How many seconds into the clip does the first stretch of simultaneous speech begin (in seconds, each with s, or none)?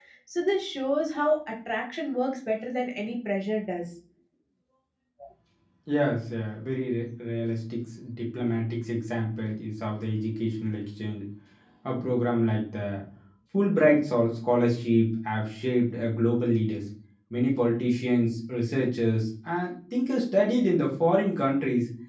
none